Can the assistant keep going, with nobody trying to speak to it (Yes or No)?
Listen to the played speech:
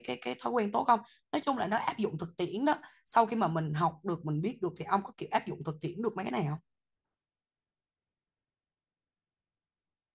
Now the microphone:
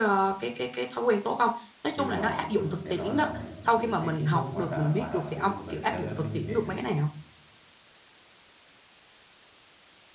No